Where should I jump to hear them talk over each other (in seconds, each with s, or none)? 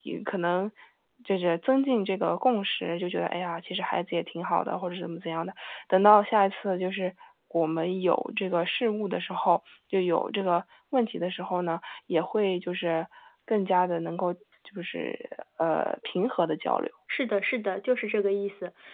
none